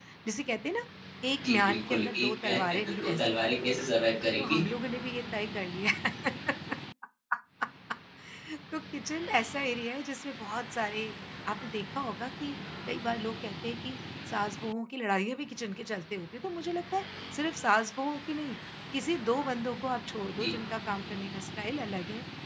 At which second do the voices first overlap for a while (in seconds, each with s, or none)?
1.5 s